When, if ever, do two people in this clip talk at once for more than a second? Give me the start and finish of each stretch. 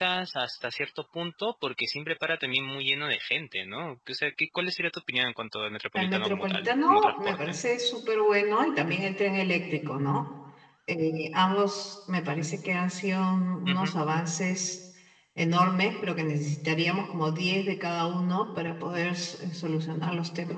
6.0-7.6

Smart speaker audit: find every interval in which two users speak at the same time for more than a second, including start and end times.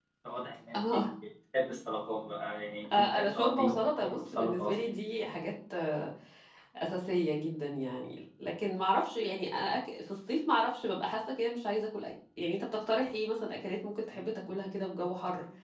3.0-4.7

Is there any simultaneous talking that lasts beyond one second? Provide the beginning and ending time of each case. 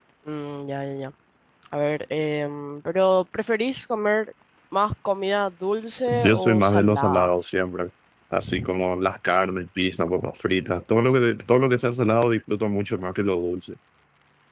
6.1-7.3

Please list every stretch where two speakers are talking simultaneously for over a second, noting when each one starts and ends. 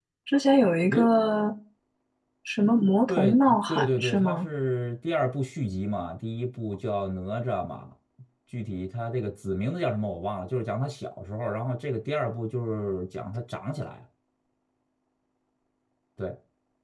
3.1-4.5

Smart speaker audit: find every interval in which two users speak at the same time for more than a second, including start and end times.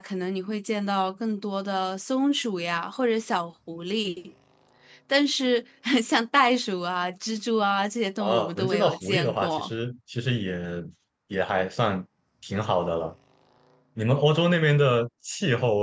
8.2-9.7

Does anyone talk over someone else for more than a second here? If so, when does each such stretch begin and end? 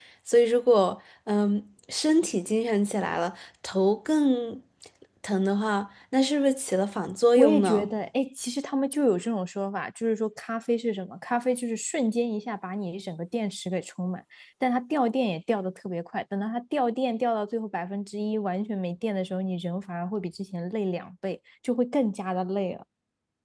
none

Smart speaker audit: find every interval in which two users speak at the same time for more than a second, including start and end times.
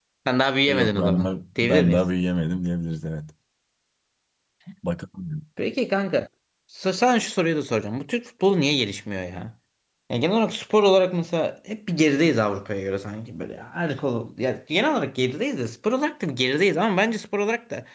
0.7-2.0

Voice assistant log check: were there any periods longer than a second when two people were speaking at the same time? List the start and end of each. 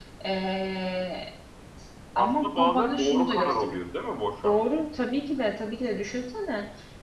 2.1-3.8

